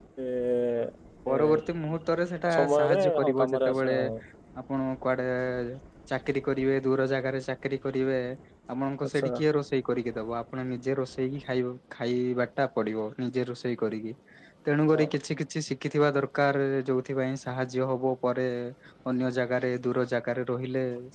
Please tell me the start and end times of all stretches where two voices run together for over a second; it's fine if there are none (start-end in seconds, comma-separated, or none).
2.5-4.0